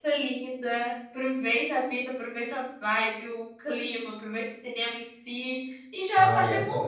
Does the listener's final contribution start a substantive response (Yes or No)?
No